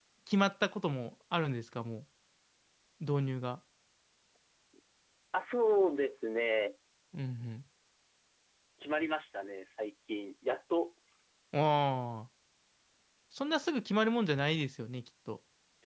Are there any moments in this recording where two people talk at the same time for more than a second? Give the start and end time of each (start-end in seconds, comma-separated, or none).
none